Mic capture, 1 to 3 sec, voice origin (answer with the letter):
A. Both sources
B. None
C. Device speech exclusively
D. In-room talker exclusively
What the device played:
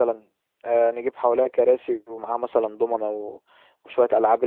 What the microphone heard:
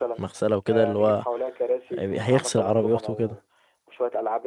A